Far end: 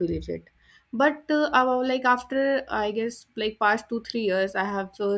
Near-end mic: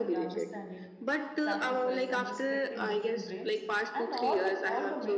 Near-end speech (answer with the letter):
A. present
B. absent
A